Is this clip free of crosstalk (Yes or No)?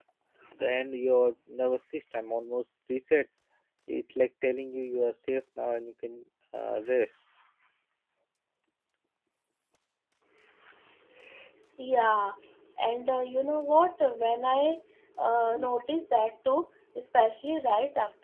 Yes